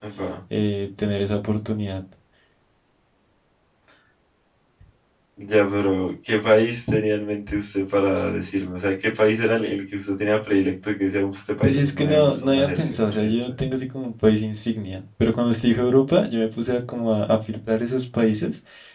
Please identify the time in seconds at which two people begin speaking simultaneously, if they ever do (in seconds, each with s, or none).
11.6 s